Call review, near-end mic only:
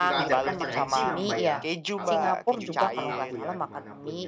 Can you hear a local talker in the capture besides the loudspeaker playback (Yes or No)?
Yes